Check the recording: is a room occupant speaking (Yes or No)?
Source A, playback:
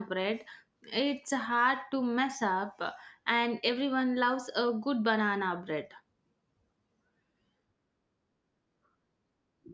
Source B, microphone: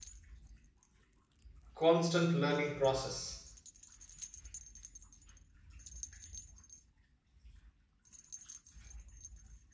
Yes